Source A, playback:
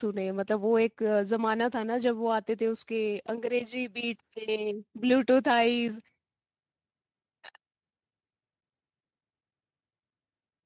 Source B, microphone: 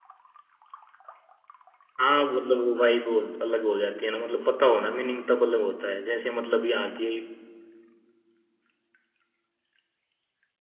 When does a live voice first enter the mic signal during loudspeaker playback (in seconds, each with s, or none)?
2.0 s